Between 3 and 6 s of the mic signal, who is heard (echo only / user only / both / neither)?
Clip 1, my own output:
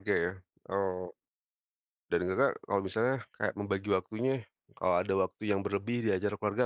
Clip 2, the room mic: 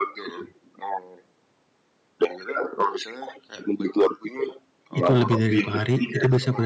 both